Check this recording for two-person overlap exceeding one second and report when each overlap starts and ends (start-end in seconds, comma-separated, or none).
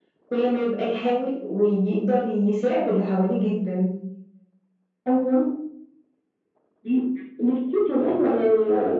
none